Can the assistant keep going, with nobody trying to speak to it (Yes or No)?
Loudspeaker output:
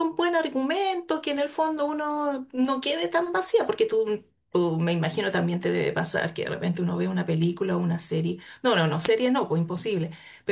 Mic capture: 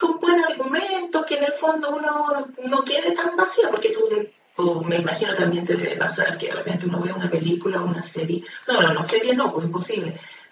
Yes